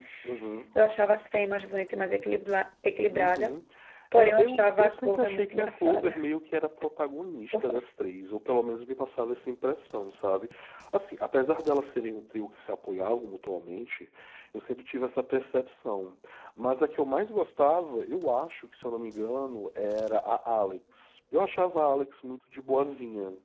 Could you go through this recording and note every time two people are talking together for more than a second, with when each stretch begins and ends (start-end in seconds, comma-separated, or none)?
4.1-6.2